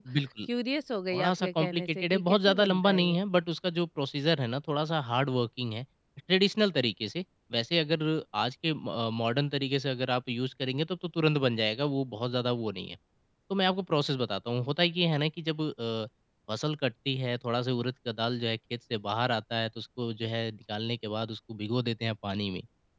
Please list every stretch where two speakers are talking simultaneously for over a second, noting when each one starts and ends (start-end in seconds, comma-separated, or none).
1.1-3.2